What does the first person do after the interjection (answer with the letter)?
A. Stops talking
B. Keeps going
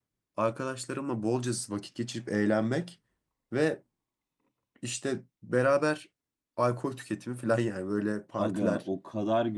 A